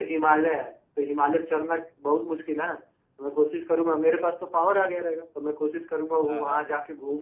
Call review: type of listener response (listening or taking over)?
listening